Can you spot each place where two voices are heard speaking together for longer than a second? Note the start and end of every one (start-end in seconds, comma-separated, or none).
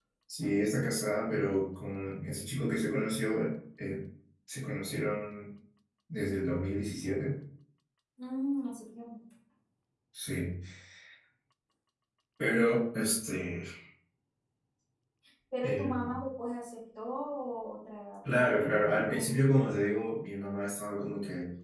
18.2-19.4